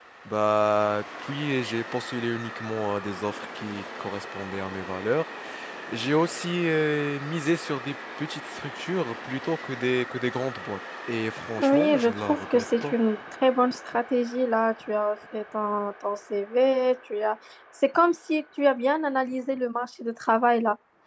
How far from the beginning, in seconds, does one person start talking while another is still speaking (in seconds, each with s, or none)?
11.6 s